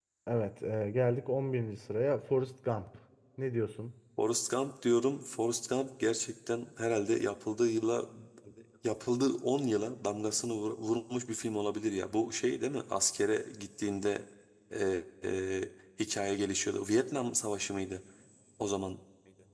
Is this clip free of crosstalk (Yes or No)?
Yes